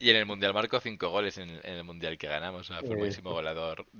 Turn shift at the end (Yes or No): No